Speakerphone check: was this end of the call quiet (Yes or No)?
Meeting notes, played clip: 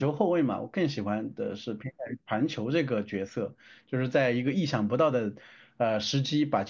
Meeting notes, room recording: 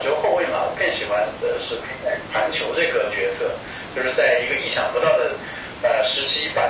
Yes